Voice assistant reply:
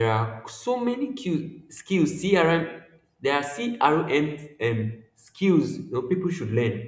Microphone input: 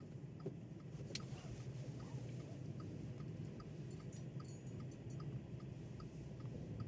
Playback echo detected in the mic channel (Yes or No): No